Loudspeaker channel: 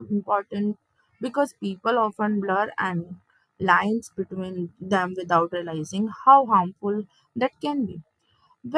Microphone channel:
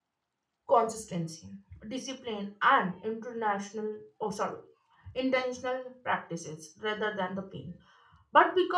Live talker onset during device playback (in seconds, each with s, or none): 0.7 s